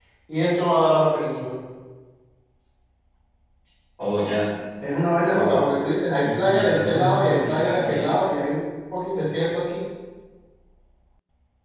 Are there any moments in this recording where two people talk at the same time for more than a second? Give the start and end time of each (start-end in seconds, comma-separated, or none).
6.2-8.2